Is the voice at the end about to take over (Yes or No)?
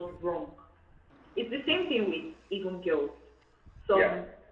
No